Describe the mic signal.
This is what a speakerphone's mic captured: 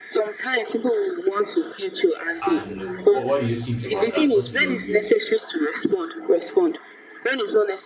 both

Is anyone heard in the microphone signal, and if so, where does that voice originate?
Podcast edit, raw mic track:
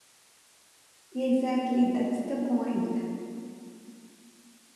user only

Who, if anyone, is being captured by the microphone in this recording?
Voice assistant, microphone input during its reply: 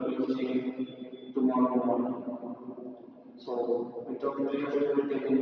echo only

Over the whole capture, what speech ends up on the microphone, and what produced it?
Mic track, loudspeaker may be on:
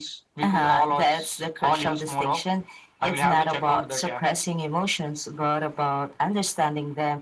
echo only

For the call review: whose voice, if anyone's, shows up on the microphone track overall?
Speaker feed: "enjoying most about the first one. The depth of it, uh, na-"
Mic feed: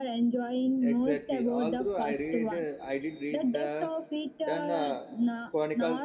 both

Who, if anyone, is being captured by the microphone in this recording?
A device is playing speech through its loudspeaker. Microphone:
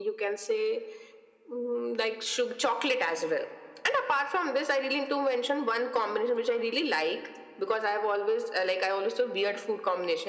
echo only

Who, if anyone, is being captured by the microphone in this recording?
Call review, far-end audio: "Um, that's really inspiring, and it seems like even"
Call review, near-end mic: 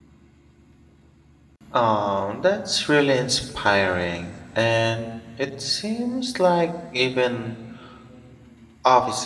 echo only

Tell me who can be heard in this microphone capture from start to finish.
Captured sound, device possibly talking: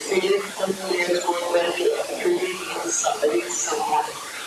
echo only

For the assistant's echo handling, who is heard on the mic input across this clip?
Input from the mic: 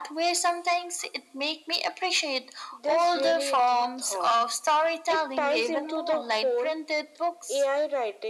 echo only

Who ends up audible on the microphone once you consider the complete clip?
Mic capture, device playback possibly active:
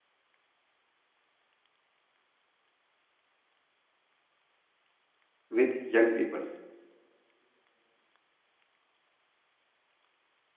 user only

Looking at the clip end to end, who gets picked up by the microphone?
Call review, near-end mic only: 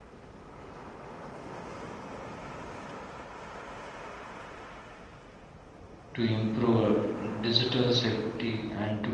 user only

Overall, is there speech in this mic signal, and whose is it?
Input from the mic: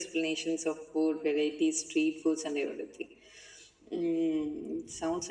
echo only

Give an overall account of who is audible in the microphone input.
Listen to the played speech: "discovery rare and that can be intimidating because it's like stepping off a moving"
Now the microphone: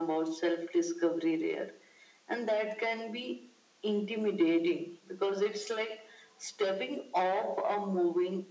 echo only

